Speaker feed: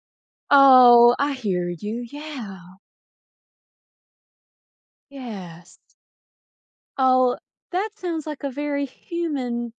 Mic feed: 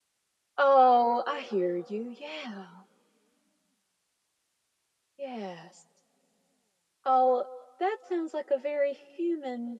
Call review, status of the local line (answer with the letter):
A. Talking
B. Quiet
B